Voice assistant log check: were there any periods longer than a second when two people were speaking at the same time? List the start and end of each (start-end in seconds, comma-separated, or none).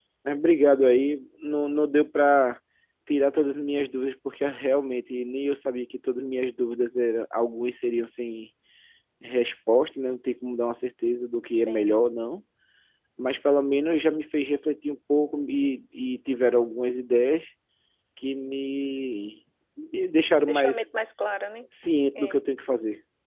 none